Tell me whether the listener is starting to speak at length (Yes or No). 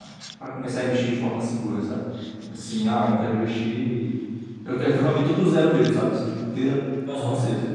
Yes